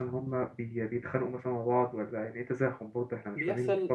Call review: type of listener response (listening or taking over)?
taking over